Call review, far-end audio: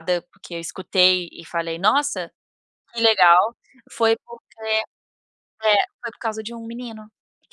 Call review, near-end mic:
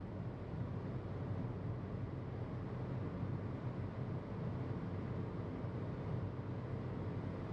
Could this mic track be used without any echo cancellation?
Yes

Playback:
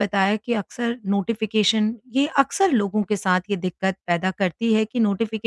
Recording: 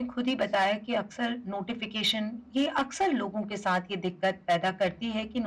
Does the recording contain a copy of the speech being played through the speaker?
Yes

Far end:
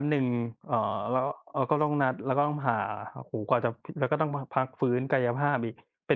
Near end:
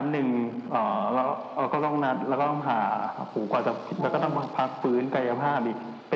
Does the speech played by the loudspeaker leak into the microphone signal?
Yes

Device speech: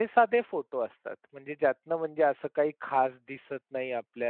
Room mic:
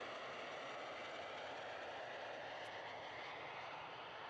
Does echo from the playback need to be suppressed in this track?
No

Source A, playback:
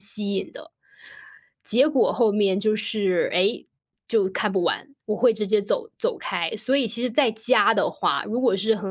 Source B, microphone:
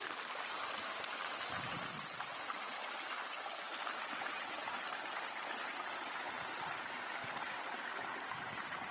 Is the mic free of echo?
Yes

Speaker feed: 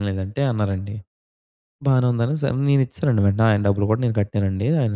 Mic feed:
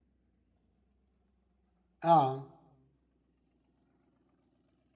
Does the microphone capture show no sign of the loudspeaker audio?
Yes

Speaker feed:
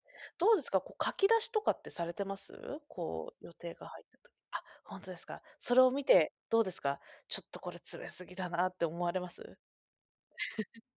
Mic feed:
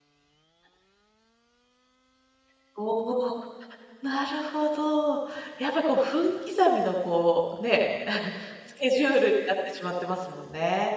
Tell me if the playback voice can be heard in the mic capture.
No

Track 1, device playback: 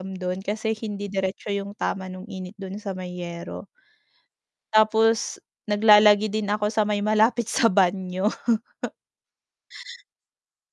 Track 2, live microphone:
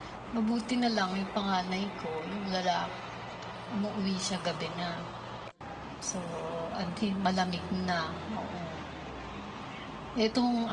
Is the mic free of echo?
Yes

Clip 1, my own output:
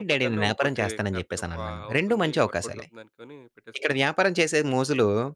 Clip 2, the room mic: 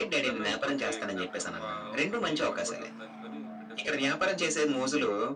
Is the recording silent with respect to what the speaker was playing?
No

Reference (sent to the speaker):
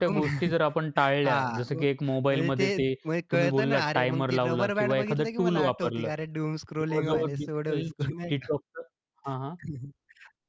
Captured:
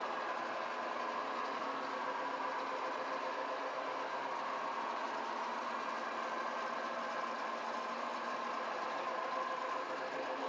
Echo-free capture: Yes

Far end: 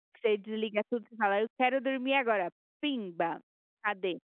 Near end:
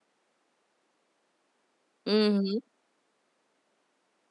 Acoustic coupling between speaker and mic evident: No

